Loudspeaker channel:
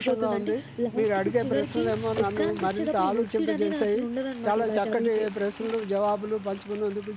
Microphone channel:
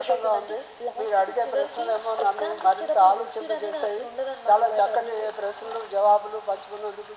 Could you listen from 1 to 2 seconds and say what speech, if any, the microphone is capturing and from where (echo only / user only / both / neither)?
echo only